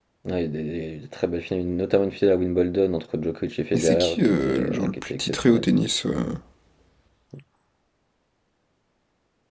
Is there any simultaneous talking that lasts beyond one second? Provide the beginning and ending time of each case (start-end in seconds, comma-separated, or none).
3.7-5.7